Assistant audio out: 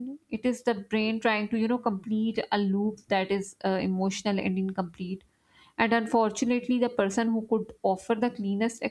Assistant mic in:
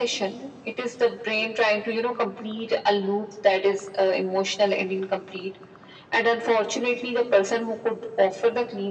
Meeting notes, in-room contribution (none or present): none